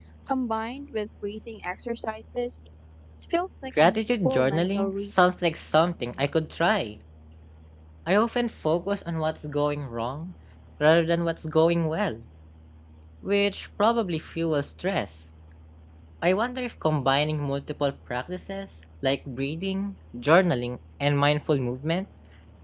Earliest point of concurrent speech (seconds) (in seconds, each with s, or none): 3.8 s